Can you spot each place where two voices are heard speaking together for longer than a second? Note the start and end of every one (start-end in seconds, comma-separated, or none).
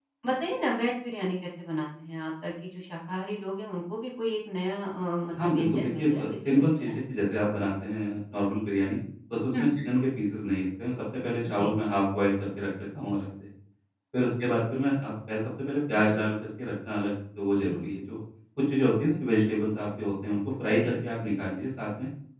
5.3-6.9